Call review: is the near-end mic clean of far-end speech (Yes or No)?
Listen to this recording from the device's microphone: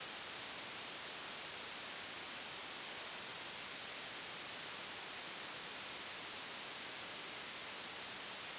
Yes